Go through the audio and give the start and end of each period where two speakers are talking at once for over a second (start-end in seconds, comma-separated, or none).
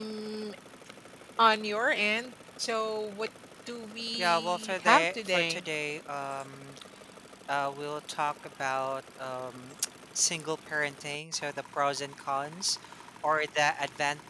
4.2-5.6